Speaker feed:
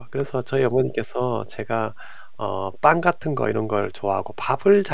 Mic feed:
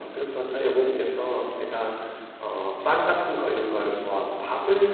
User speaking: No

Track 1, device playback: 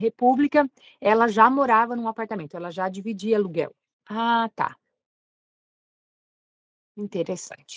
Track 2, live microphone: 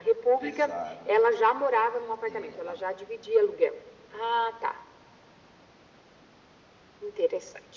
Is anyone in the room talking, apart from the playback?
Yes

